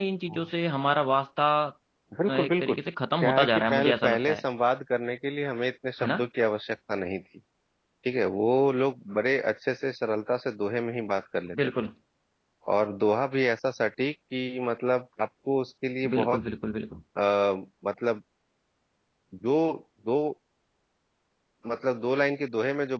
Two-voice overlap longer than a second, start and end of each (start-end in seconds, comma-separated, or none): 3.2-4.4